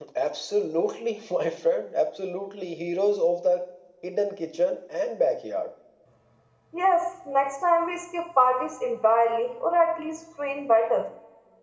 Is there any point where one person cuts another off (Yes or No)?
No